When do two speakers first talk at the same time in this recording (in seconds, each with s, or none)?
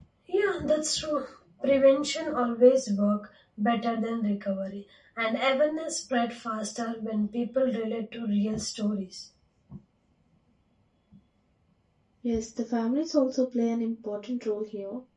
none